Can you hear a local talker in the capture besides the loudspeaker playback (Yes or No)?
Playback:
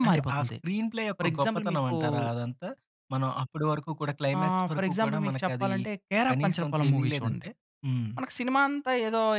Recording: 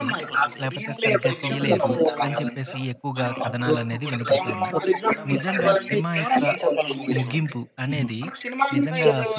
Yes